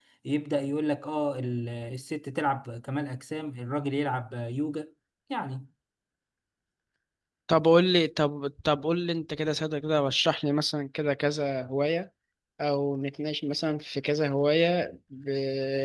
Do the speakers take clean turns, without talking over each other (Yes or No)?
Yes